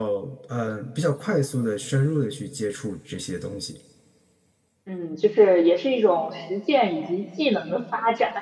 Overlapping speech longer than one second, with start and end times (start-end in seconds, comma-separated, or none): none